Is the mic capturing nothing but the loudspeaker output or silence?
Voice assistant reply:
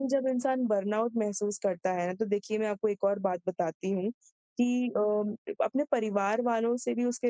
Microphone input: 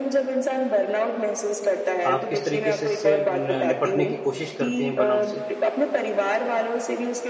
No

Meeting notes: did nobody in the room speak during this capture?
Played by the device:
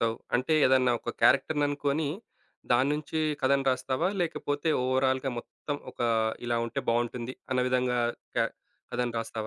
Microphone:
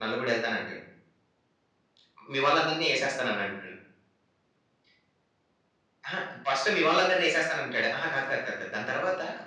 No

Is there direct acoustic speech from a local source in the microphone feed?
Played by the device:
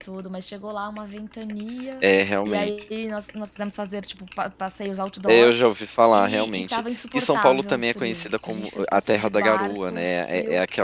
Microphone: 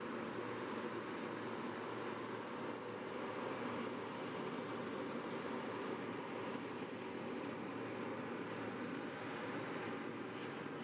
No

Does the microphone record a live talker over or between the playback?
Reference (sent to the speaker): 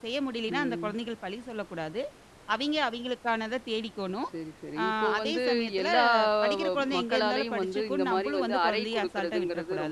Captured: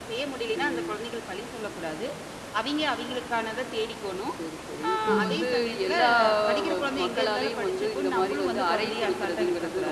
Yes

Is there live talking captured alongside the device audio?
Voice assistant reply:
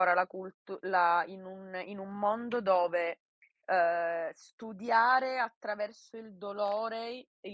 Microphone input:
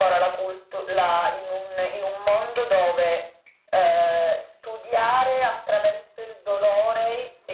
No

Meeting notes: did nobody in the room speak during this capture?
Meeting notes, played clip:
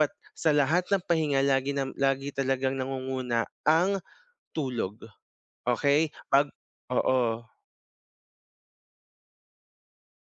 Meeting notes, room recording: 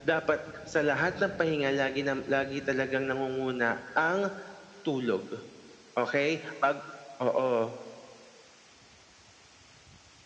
Yes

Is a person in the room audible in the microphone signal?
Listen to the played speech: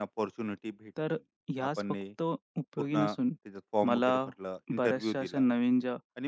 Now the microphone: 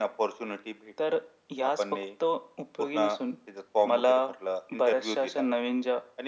No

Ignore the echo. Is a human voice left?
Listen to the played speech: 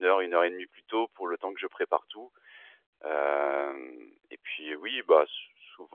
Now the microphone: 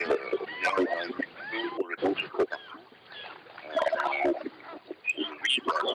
No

